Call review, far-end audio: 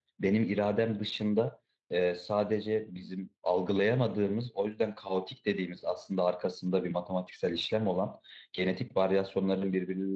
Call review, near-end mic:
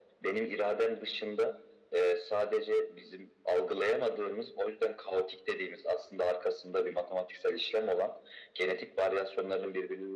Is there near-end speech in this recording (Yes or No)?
No